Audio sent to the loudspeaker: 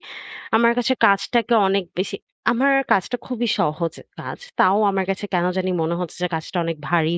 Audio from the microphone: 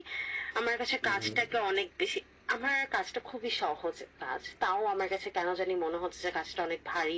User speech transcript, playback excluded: হুম, হুম।

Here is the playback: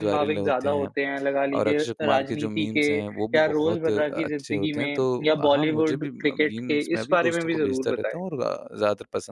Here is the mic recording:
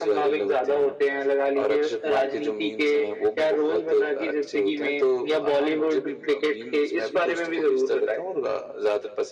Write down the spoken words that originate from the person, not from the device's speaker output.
none

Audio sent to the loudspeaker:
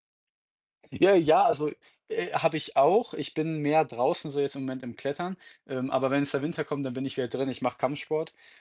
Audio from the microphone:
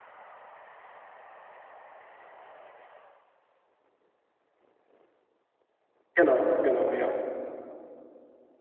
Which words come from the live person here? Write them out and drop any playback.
Genau, genau, ja.

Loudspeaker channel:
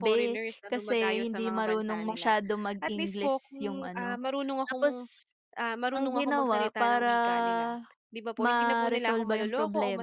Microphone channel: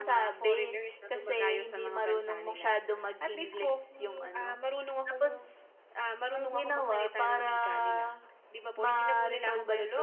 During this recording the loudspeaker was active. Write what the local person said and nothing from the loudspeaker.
none

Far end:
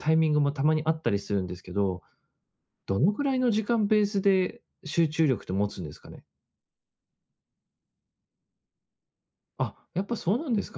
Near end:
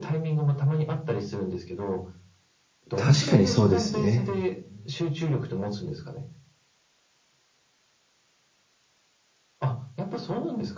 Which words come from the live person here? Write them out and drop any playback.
確かにそうですね。

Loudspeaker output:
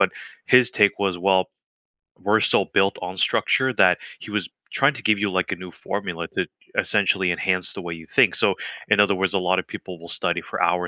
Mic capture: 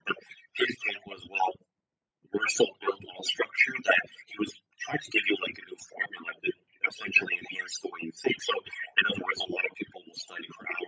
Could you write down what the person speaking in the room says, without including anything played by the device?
none

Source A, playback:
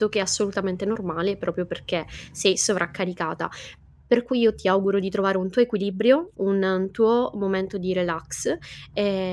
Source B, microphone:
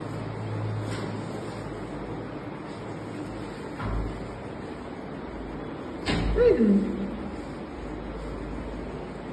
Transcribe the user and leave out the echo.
Mh.

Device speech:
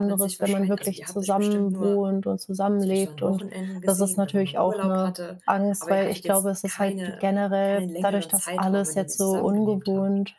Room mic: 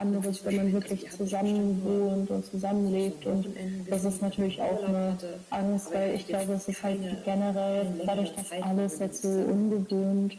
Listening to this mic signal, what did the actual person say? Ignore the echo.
none

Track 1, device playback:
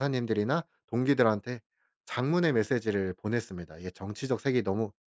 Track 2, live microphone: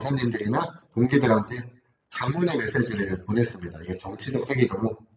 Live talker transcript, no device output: none

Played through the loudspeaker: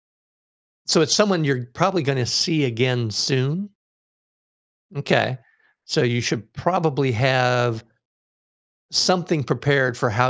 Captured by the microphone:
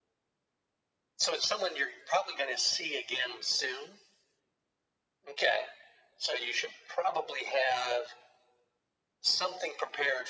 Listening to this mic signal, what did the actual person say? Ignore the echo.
none

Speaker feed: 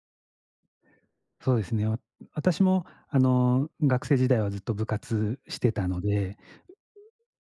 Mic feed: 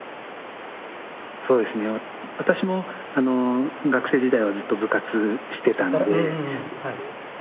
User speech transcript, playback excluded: あたらうんうんうん。はい。

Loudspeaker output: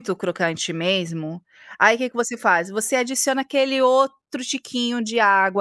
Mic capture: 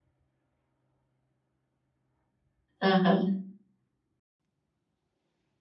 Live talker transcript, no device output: aham.

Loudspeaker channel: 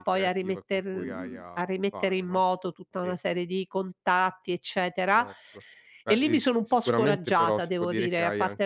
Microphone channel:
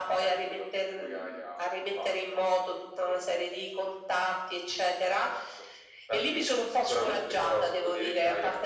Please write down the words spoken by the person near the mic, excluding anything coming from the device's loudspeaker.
none

